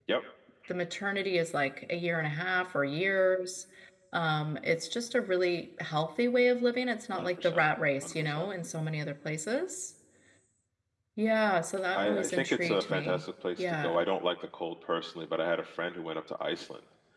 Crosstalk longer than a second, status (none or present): present